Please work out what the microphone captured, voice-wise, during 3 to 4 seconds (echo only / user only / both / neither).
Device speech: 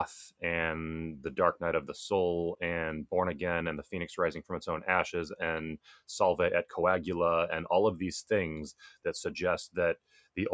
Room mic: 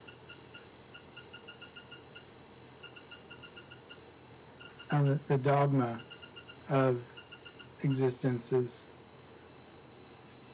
neither